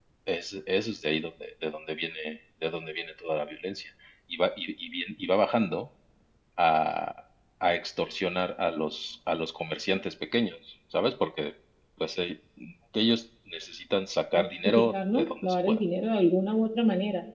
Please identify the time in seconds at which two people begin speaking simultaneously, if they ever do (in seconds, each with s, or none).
14.3 s